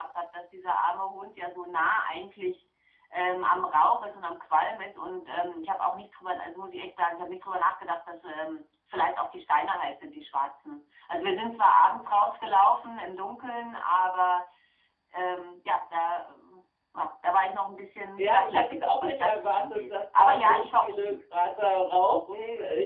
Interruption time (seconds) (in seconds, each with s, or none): 18.2 s